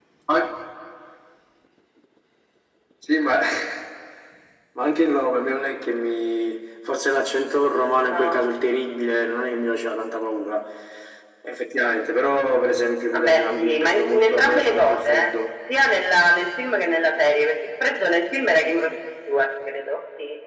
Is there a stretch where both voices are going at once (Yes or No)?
Yes